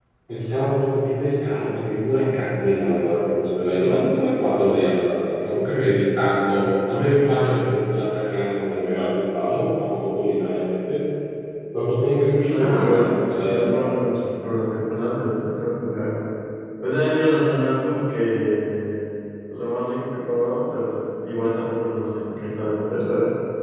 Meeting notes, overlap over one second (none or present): present